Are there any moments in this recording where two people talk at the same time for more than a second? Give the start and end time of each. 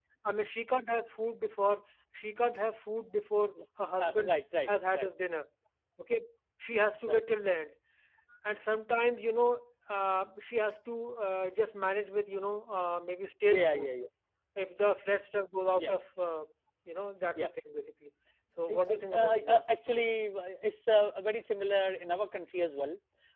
18.7-20.1

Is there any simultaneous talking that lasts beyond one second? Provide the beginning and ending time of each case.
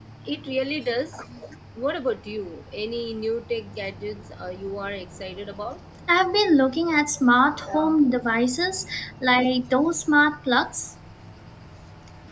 none

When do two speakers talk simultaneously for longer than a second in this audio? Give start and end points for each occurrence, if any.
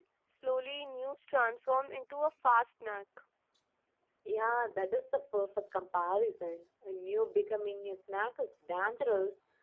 none

